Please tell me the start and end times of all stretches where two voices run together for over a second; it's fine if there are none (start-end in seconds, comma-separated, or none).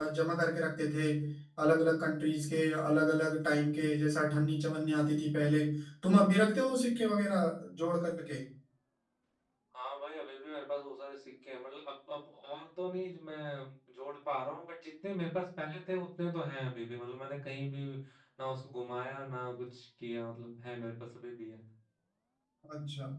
none